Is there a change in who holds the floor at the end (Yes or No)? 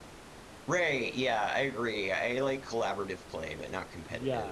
Yes